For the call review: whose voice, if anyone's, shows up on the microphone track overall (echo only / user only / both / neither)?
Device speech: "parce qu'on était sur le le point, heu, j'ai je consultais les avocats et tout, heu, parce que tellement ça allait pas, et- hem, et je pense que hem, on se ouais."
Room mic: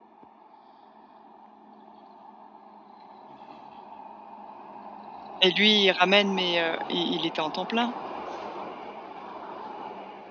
user only